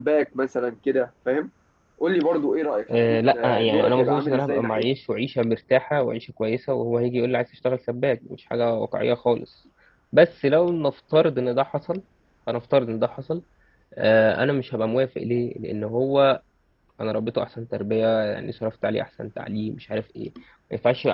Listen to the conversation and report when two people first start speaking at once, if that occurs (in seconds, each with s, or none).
2.9 s